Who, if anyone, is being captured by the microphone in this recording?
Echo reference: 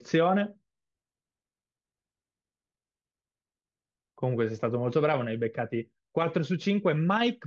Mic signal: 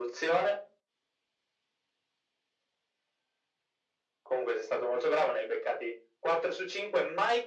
echo only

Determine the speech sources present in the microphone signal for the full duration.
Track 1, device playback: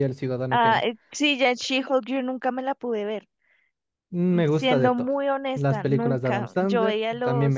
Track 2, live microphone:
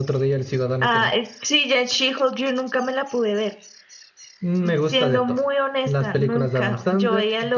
echo only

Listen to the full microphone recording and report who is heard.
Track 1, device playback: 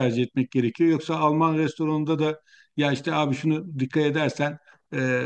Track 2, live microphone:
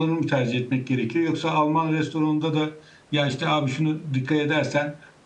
echo only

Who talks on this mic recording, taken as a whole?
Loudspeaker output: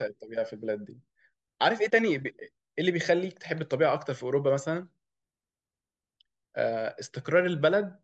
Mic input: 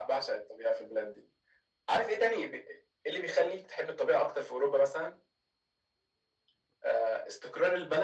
echo only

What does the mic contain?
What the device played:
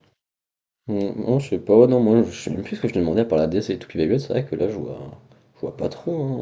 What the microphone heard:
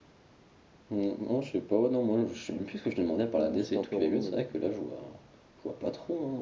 both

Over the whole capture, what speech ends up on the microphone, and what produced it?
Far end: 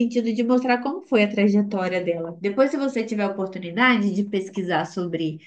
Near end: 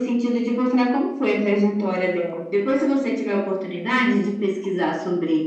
echo only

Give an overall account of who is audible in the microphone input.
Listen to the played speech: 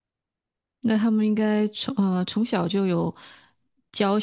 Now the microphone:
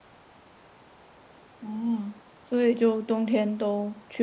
user only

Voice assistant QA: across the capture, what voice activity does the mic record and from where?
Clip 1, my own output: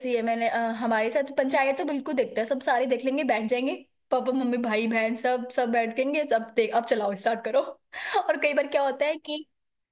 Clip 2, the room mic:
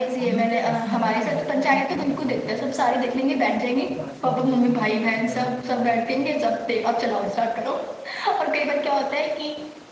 both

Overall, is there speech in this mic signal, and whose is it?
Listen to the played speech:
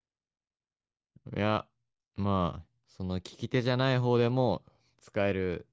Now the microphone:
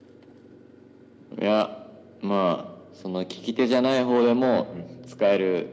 both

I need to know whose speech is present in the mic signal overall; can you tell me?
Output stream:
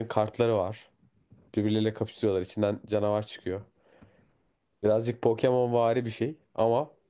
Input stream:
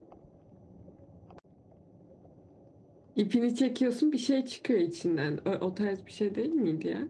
user only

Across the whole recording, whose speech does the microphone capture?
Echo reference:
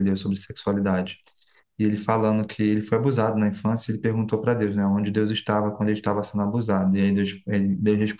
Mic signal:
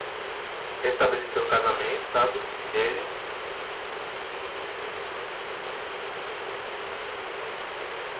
user only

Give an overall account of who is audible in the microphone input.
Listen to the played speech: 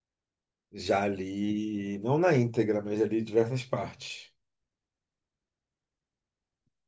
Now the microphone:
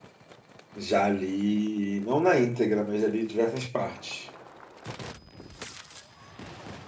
echo only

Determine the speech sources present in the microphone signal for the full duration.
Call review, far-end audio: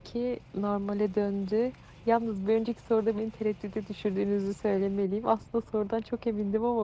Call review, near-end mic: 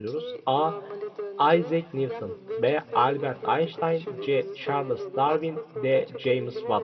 both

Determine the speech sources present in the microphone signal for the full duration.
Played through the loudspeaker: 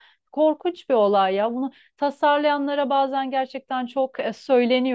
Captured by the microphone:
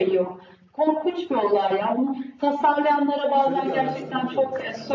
both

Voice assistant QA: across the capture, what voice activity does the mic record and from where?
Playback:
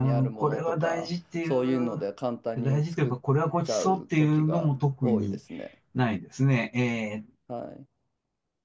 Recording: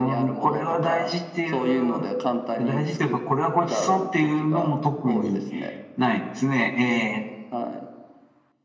echo only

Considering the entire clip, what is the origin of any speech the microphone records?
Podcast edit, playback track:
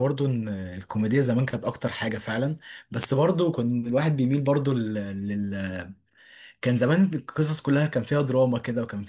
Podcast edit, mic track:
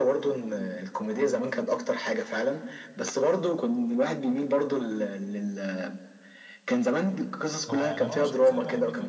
both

